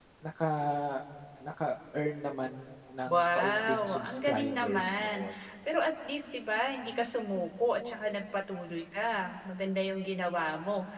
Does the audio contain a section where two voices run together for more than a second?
Yes, from 3.0 s

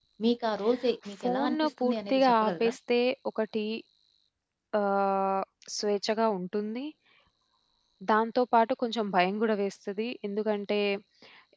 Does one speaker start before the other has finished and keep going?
Yes, from 1.2 s

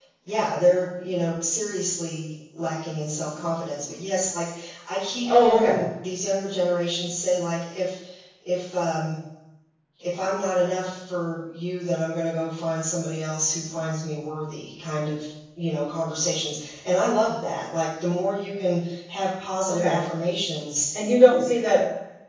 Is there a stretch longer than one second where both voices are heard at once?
No

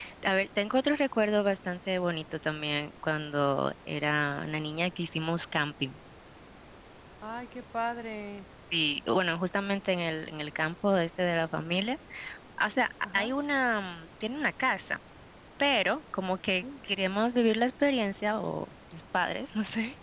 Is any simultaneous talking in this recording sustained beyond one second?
No

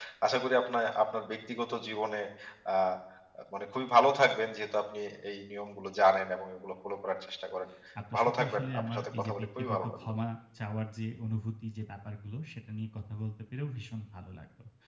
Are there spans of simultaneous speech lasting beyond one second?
Yes, from 8.2 s

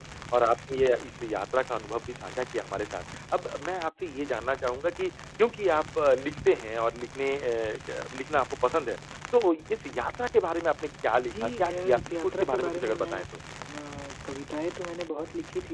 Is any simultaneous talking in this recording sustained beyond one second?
Yes, from 11.2 s

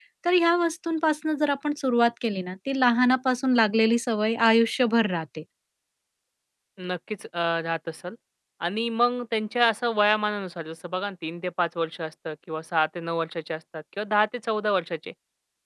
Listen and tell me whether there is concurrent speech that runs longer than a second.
No

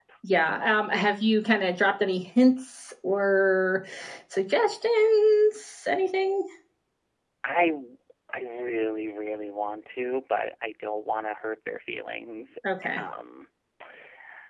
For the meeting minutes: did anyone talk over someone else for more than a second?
No

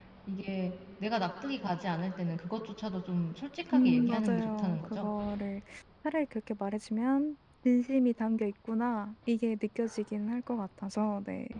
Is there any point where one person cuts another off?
Yes, from 3.7 s

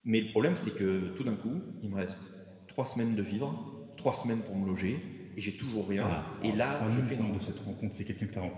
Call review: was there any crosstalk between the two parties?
Yes, from 6.0 s

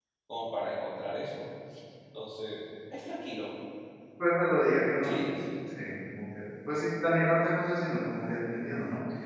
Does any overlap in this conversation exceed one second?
No

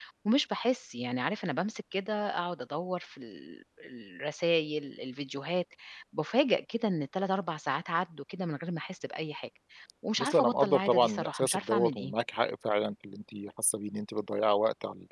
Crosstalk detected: Yes, from 10.2 s

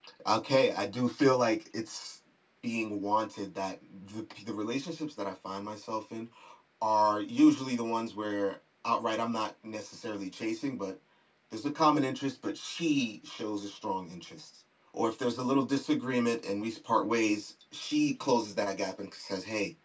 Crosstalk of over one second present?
No

